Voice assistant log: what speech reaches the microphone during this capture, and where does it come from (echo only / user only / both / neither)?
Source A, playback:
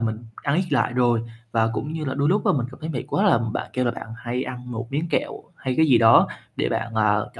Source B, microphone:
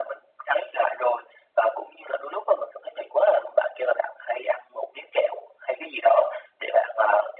echo only